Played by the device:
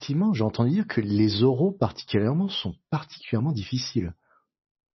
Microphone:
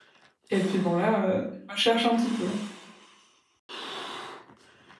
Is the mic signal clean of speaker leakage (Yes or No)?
Yes